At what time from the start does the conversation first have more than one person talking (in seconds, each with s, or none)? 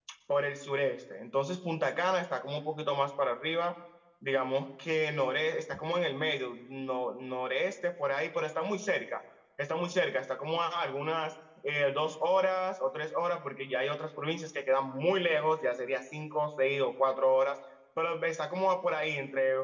none